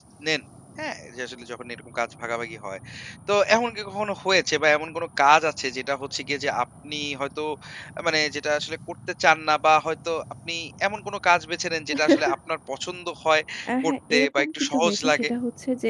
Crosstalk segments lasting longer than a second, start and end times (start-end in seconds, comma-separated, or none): 13.8-15.3